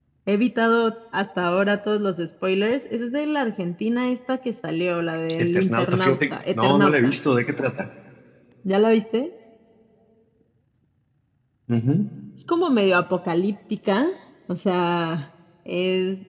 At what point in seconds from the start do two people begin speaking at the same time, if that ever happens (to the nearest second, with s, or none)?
5 s